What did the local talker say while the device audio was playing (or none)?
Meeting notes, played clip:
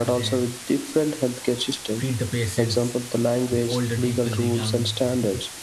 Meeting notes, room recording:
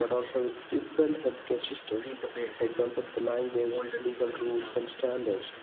none